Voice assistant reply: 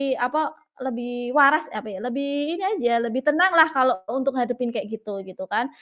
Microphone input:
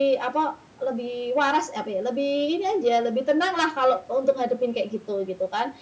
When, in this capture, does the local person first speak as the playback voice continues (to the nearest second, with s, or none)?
none